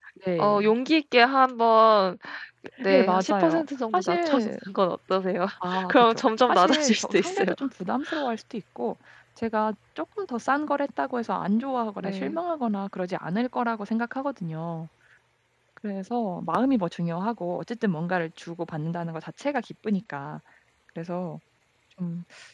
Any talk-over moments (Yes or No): Yes